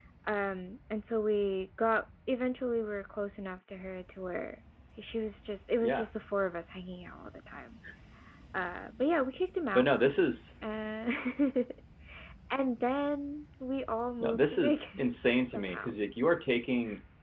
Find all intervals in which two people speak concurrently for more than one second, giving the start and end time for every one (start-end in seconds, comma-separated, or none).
14.2-15.9